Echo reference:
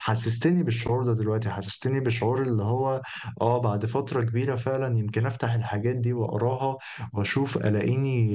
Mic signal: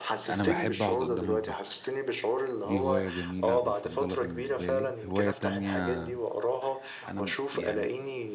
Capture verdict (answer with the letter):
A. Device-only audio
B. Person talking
B